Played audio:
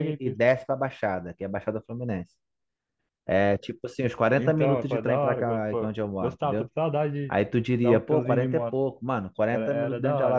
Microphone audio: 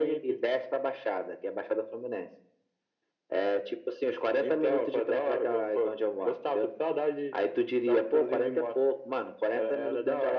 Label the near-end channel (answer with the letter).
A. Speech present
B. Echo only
B